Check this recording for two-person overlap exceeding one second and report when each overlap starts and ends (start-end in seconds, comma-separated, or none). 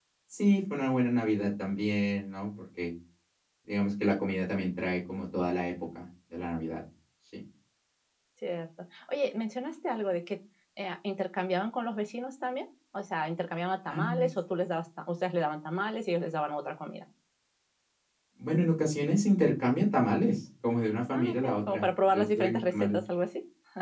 21.1-23.0